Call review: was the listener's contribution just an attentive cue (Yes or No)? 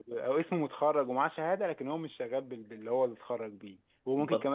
Yes